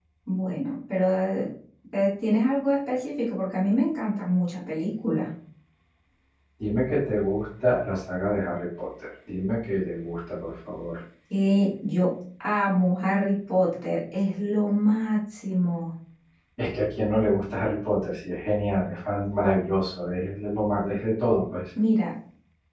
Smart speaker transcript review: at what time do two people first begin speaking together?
none

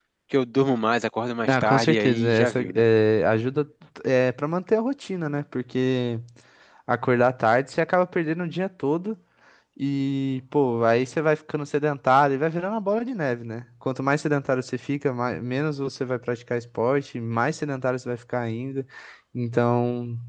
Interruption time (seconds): 1 s

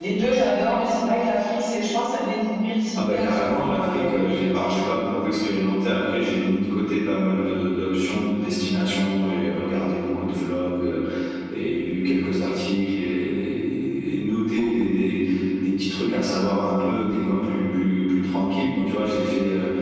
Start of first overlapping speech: 3 s

